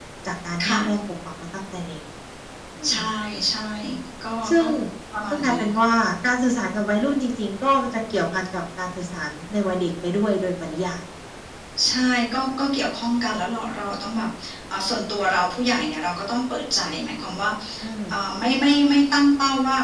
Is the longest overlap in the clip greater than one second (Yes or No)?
No